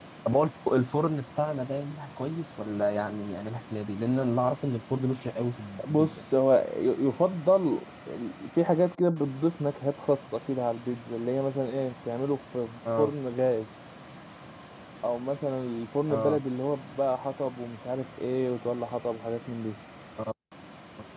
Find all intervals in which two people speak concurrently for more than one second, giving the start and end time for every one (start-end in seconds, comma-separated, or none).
none